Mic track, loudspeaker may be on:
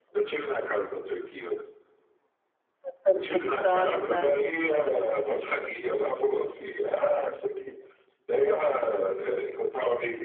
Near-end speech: present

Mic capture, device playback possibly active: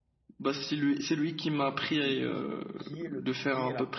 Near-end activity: present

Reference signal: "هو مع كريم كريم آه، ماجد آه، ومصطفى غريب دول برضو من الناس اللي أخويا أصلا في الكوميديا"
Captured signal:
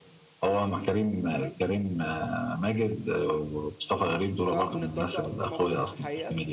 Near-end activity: present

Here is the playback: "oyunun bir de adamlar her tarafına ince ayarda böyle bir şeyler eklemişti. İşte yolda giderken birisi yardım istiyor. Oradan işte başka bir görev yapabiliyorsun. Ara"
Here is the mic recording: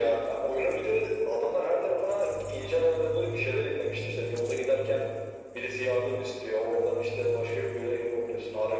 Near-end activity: none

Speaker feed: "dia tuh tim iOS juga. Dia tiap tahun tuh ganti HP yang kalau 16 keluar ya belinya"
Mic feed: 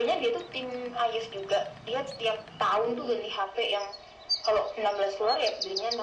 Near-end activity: none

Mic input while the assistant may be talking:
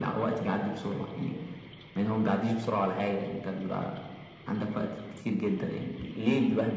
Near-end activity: none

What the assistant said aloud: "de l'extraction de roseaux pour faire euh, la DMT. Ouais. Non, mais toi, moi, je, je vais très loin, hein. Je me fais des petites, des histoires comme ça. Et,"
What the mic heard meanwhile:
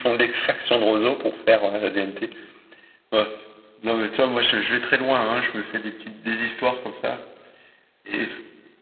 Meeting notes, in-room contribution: none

